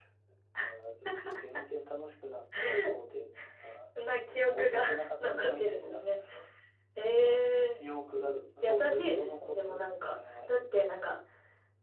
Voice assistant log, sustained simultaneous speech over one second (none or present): present